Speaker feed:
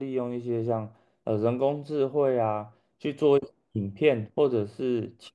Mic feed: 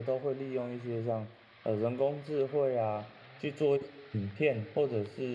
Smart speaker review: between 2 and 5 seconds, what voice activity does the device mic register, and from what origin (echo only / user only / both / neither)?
echo only